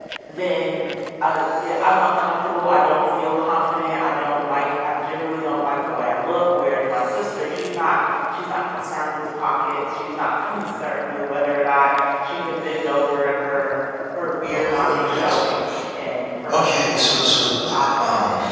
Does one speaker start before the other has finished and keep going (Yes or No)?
Yes